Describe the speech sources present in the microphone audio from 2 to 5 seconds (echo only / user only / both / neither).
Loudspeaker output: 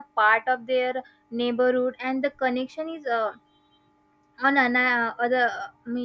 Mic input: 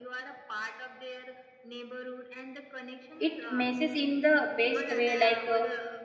both